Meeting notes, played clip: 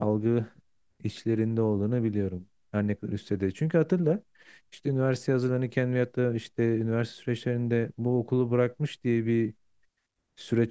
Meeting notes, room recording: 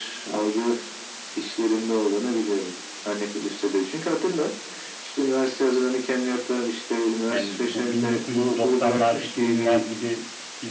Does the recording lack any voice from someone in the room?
No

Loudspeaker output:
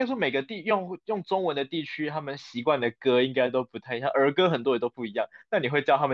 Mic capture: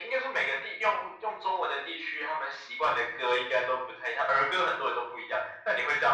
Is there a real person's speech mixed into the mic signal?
No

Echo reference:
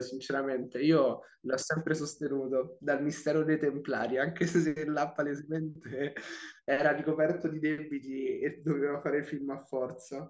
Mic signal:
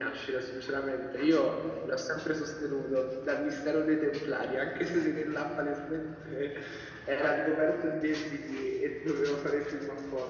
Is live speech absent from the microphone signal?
Yes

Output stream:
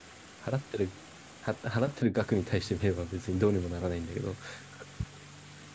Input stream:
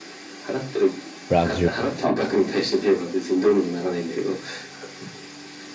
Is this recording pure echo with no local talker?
No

